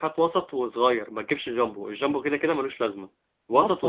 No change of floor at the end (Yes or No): No